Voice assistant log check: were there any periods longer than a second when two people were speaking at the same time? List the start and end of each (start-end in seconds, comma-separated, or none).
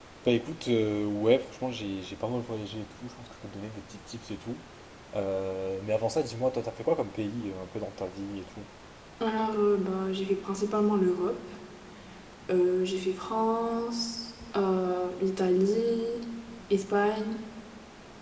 none